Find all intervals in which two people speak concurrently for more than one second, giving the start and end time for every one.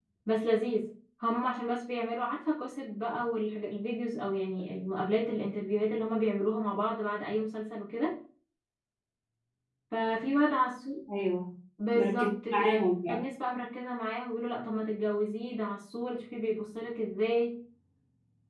11.9-13.2

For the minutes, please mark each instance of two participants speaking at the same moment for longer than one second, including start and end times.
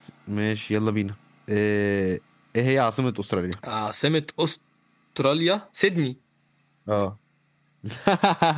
none

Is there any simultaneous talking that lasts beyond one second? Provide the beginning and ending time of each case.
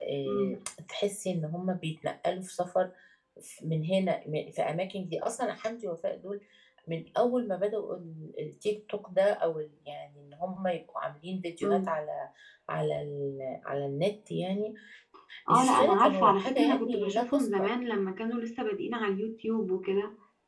15.5-17.7

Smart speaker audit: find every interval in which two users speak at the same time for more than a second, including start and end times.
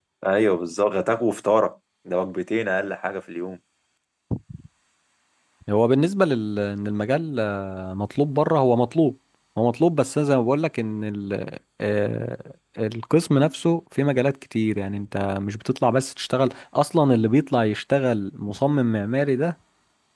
none

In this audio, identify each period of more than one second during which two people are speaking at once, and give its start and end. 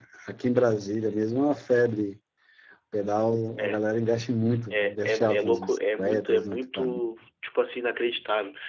4.7-7.0

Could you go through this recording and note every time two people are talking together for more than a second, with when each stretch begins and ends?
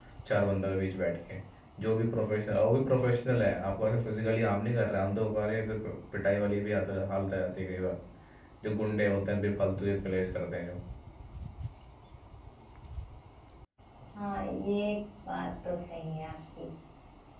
none

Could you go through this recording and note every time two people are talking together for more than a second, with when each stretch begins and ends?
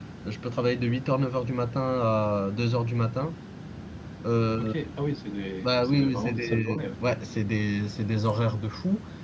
5.6-6.9

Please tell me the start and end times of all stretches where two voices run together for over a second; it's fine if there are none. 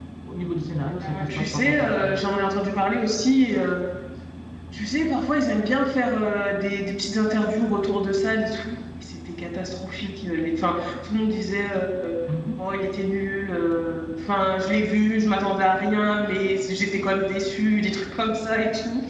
1.0-2.2

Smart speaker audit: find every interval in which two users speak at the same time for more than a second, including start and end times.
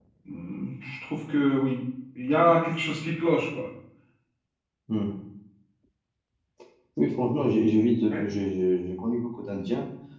none

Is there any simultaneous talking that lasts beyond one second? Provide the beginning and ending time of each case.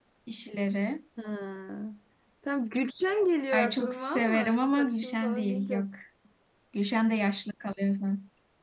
3.5-5.9

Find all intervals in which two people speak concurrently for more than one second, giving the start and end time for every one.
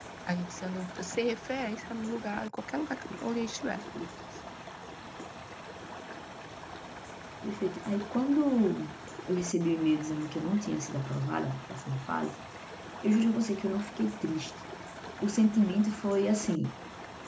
none

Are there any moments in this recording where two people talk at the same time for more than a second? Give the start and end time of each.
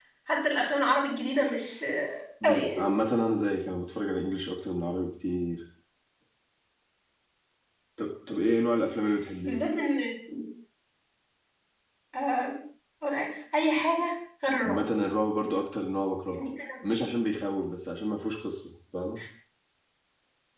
none

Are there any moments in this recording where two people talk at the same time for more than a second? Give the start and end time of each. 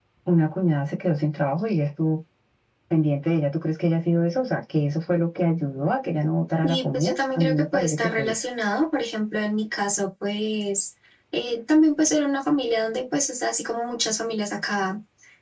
6.6-8.4

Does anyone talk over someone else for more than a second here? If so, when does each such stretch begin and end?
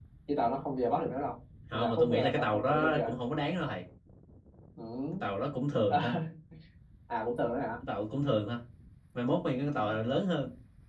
1.7-3.0

